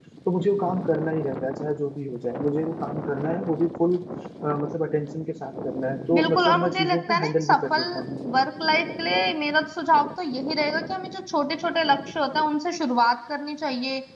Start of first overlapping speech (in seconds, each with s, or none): 6.1 s